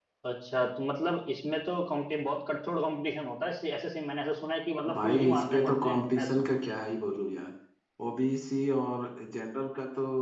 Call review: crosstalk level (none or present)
present